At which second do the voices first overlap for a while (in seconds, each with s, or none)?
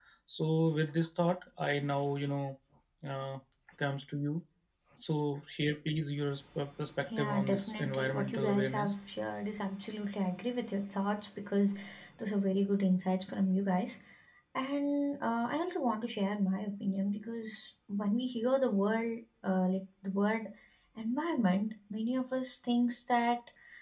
7.0 s